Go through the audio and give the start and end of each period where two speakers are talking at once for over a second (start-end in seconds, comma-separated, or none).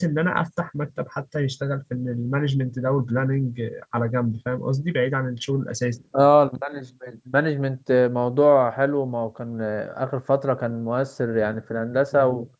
none